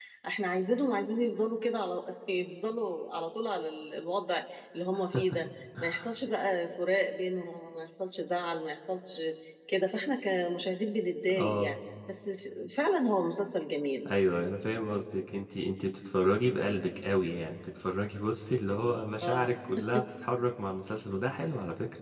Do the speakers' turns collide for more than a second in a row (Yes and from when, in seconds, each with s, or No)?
No